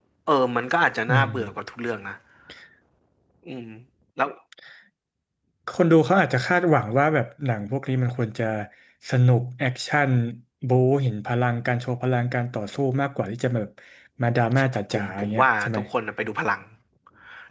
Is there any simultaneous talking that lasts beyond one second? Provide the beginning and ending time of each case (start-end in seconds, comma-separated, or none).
14.6-15.8